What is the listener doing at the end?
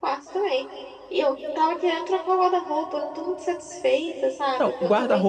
taking over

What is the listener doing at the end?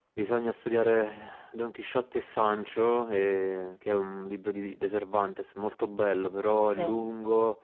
listening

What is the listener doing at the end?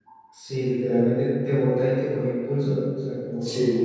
listening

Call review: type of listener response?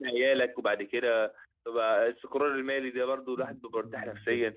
taking over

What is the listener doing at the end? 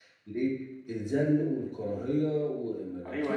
taking over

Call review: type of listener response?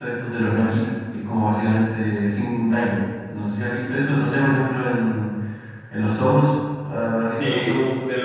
taking over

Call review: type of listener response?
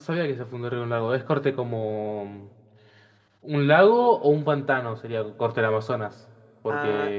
taking over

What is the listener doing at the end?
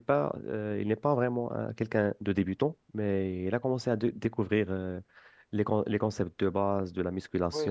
taking over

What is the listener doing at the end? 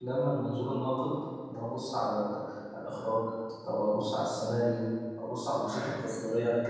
listening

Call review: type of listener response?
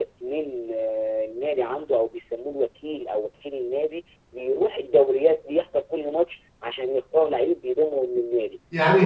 taking over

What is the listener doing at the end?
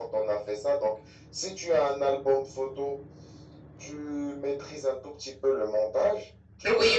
taking over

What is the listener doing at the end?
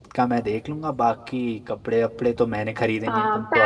taking over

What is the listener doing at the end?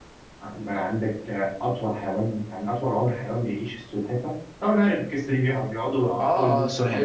taking over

